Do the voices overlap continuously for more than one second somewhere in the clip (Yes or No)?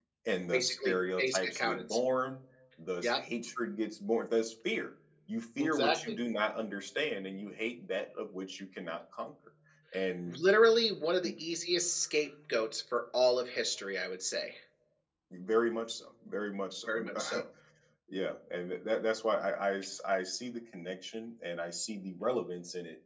Yes